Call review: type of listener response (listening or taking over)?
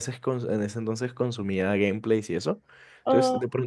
listening